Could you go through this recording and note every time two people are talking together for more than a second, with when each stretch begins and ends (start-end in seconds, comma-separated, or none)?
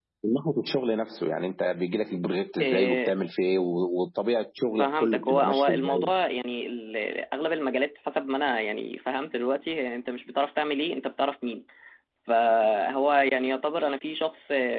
4.8-6.1